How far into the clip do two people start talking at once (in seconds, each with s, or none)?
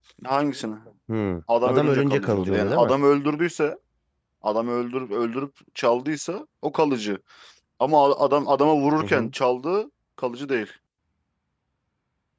1.6 s